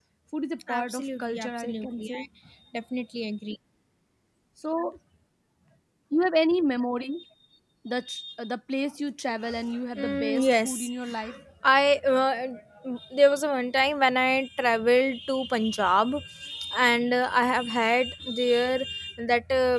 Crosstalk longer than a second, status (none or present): present